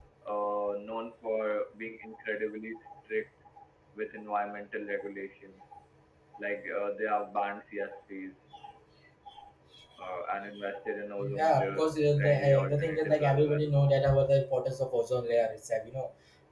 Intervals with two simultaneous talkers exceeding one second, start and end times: 11.2-13.7

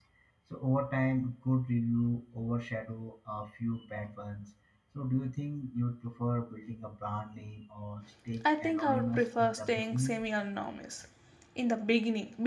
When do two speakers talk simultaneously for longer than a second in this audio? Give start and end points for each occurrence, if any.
8.6-10.2

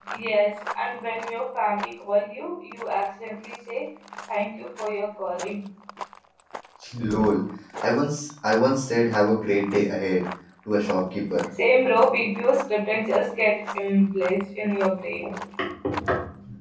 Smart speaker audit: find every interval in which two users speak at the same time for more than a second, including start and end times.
none

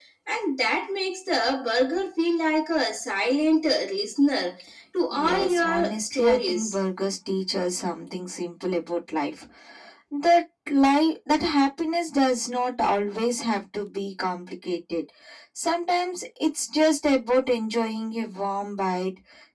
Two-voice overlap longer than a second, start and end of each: 5.1-6.8

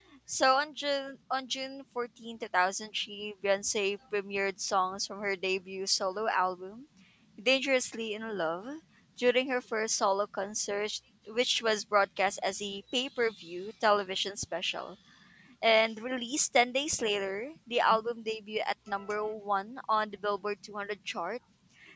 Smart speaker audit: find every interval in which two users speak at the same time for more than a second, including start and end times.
none

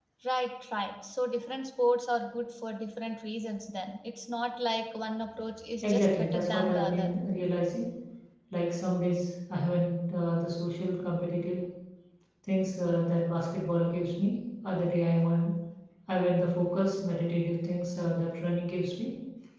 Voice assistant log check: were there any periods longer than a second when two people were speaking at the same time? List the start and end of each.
5.8-7.1

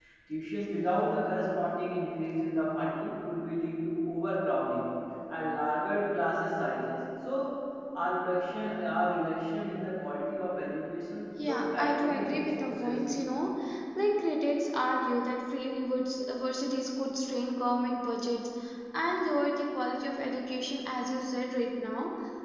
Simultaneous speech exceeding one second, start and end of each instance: 11.5-13.0

